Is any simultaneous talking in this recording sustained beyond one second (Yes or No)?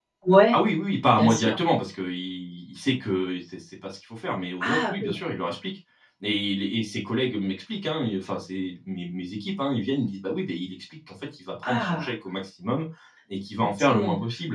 No